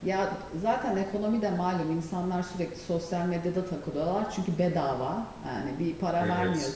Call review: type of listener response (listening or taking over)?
listening